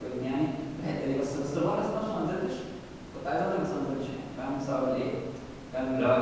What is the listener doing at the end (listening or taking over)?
taking over